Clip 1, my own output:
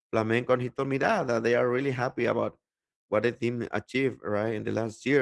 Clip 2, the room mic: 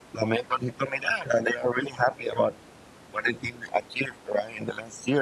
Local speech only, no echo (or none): none